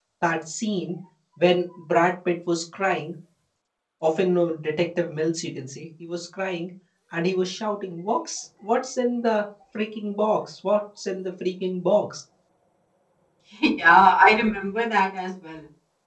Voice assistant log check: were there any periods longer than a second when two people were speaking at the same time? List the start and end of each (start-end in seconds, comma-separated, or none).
none